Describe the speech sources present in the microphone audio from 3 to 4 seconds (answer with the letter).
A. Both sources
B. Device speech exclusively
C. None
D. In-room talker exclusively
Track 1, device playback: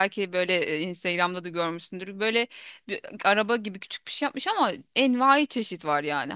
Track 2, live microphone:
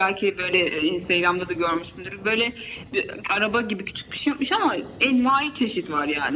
B